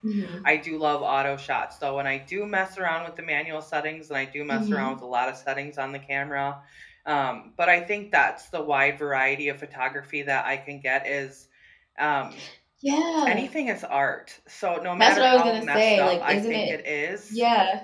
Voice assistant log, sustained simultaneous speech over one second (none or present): present